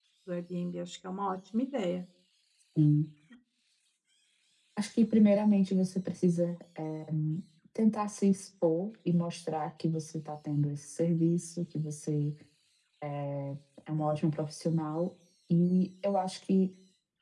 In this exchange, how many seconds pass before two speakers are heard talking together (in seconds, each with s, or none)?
none